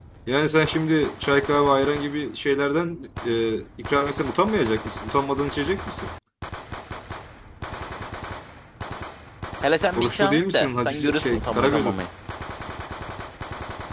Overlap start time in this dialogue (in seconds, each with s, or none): 10.0 s